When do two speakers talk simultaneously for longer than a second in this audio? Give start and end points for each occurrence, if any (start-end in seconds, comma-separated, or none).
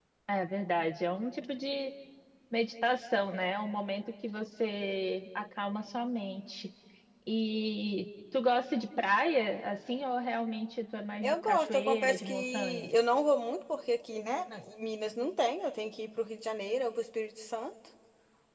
11.2-12.9